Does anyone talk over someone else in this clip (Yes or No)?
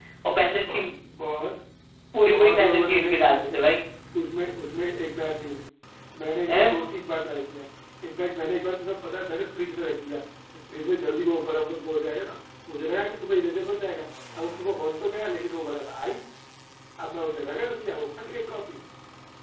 Yes